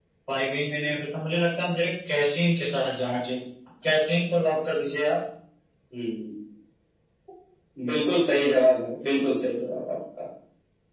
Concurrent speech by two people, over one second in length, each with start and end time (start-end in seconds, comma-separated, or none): none